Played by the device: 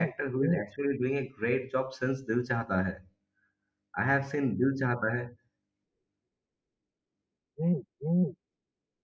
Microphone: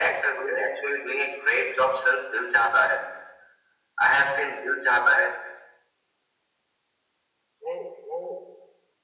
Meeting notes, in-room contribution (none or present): none